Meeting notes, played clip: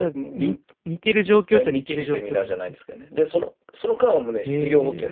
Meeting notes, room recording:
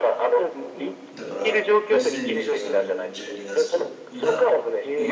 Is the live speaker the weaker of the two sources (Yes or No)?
Yes